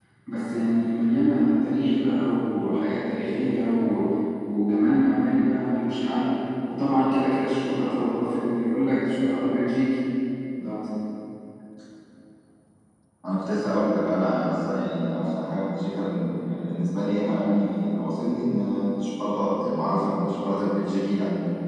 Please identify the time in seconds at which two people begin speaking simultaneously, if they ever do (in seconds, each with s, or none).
none